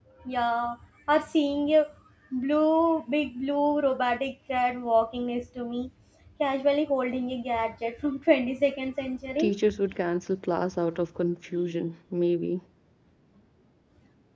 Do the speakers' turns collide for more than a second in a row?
No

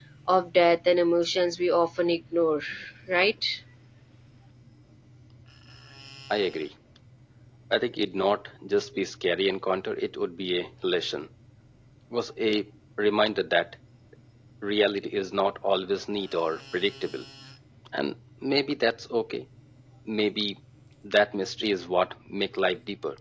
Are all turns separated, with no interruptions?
Yes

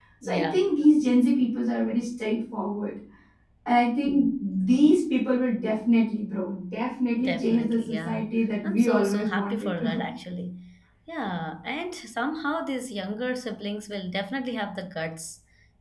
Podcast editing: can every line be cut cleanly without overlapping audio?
No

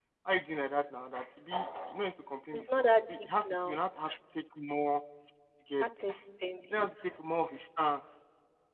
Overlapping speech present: Yes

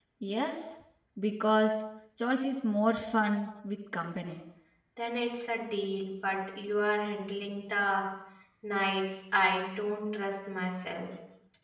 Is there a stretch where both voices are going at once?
No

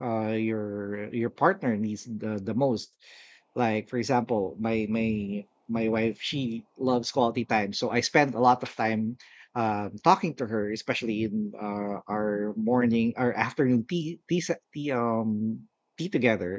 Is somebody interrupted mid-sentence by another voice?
No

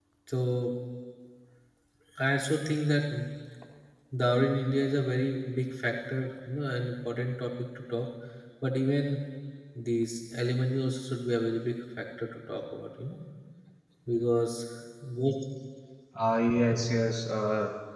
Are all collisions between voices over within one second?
Yes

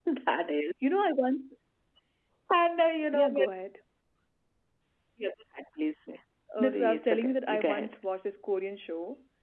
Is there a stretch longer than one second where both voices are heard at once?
Yes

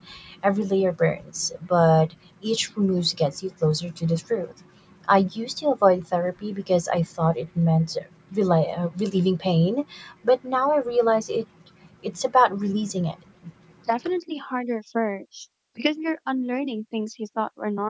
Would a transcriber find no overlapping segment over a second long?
Yes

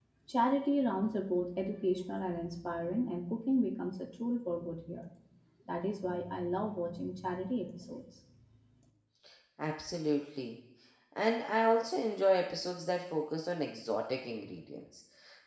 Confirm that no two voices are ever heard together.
Yes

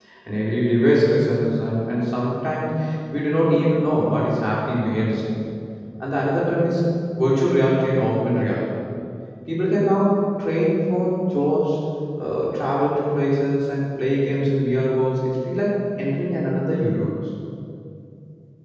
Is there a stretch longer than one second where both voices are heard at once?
No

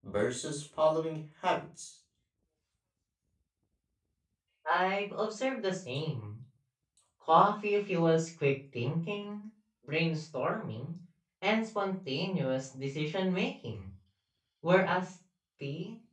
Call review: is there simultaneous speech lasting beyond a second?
No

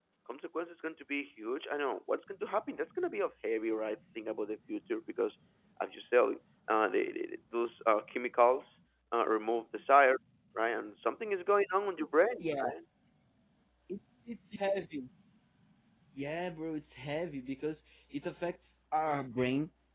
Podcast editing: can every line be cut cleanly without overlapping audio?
Yes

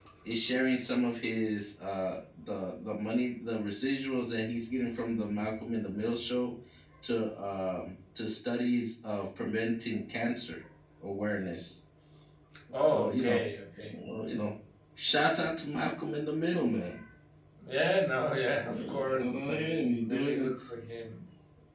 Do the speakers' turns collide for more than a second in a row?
Yes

